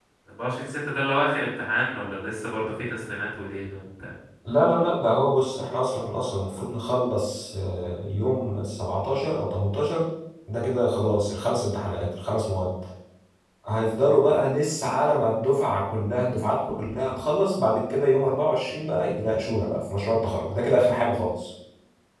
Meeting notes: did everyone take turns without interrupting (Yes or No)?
Yes